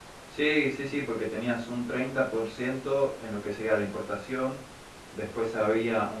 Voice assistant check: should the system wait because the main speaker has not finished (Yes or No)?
Yes